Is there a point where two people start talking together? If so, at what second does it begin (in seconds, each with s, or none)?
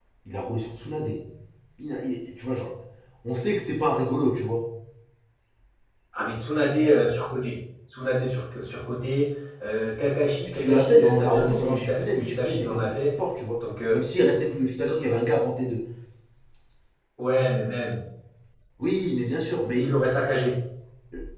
10.4 s